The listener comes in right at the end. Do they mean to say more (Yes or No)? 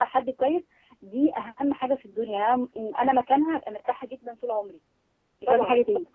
Yes